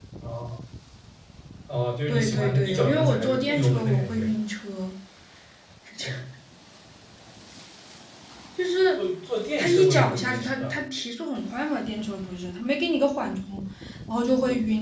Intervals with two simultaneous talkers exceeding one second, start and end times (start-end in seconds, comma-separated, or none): 2.1-4.3, 9.6-10.8